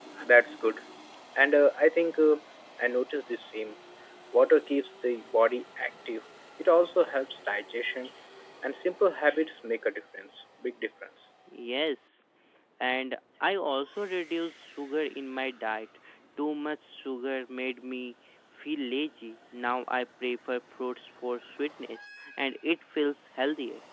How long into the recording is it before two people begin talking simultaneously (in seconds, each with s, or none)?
none